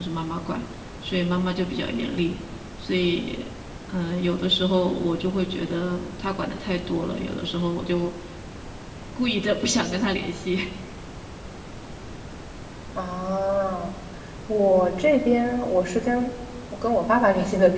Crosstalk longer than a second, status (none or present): none